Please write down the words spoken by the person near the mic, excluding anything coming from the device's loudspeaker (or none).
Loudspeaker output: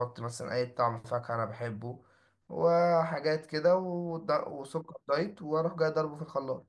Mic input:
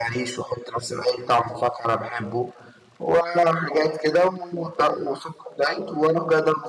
none